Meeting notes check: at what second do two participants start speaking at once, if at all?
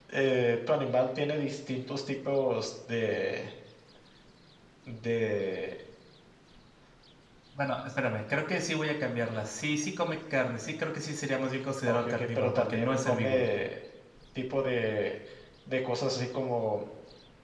11.9 s

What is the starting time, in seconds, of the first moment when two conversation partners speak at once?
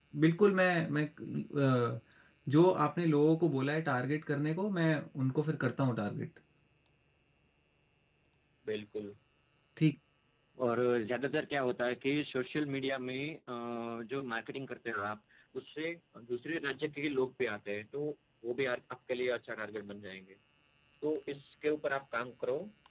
none

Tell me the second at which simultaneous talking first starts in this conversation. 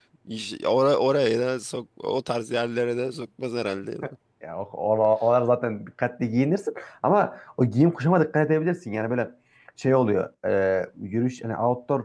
none

